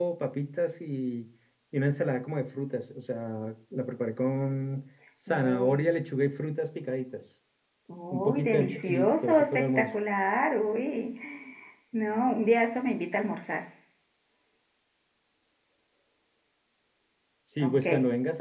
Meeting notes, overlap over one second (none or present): present